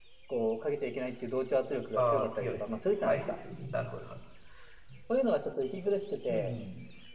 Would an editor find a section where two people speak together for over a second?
Yes, from 2.0 s

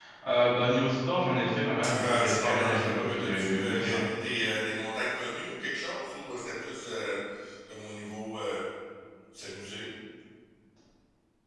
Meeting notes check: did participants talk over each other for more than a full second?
Yes, from 1.8 s

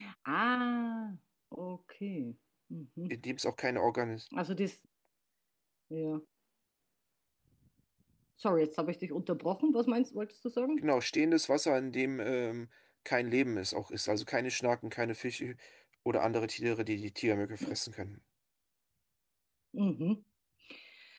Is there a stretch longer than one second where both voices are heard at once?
No

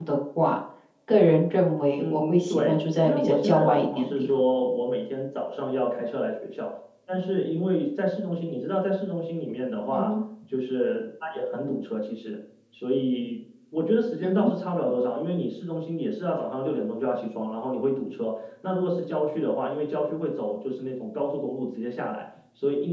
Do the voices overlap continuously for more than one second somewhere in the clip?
Yes, from 1.9 s

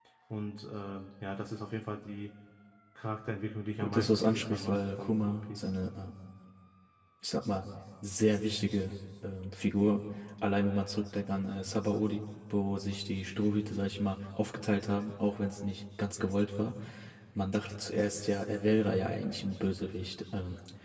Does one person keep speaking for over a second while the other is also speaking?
Yes, from 3.8 s

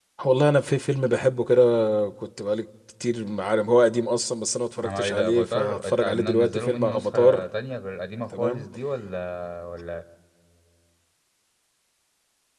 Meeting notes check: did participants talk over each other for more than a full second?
Yes, from 4.8 s

